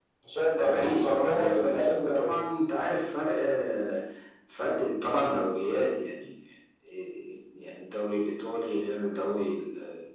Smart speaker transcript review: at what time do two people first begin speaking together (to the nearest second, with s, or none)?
1 s